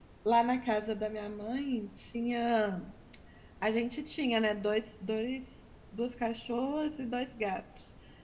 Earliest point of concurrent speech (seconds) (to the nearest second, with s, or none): none